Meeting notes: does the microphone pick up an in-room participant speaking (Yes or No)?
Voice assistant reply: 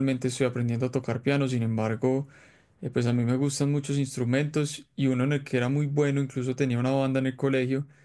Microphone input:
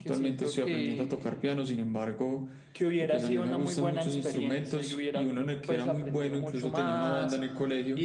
Yes